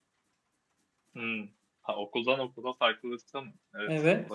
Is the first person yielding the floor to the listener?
Yes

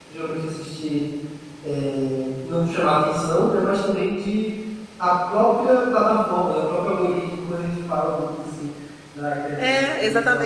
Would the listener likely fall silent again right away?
No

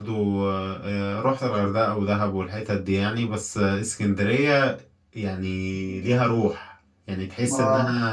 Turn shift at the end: No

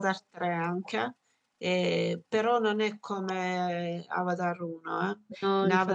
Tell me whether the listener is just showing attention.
Yes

